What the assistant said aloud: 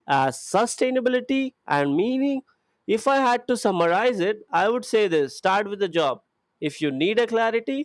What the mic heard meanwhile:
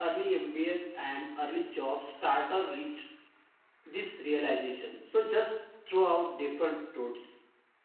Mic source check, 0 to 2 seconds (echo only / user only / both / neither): user only